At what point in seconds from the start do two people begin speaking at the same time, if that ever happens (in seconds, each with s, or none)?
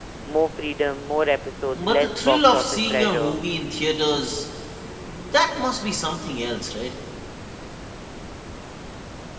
1.6 s